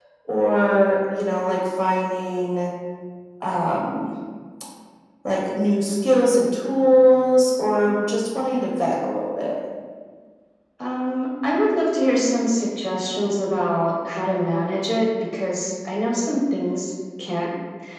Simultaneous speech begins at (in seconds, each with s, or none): none